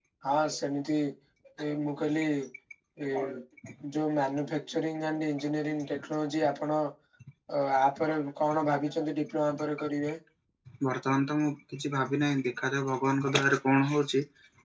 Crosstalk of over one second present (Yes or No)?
No